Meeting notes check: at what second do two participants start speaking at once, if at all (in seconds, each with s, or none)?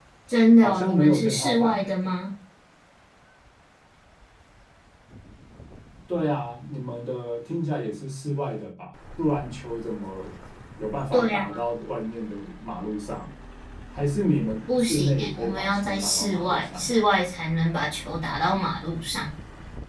0.6 s